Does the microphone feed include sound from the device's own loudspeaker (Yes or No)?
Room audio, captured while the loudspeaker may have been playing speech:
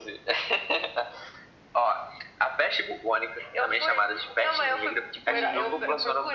Yes